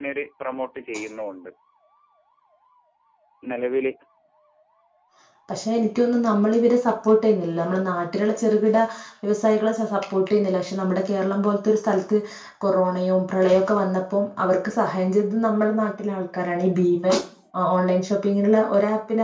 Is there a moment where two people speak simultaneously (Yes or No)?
No